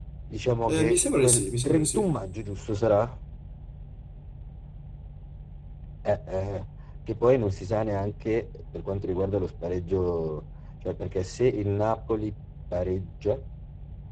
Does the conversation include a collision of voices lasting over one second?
Yes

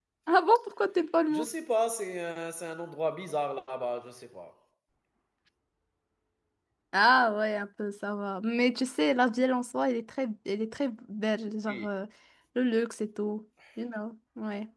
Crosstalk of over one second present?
No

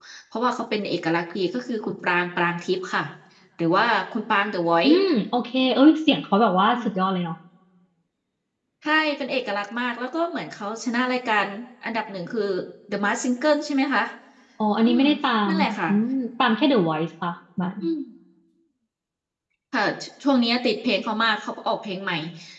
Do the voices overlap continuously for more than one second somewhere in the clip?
No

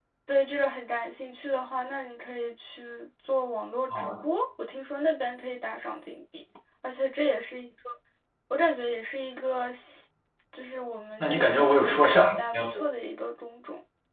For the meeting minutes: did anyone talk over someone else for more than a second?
Yes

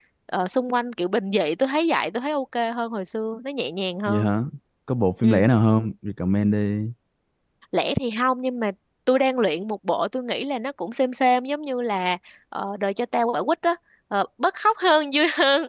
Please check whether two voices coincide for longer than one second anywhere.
No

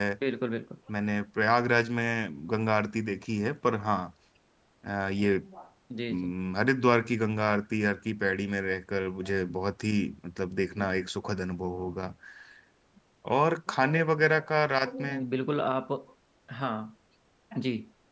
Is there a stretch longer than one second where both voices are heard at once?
No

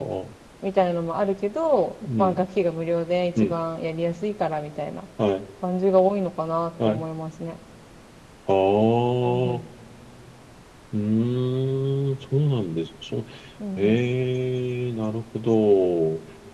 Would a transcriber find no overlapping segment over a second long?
Yes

